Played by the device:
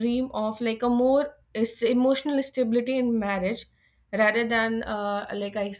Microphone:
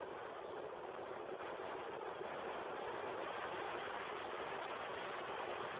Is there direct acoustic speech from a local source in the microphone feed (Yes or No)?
No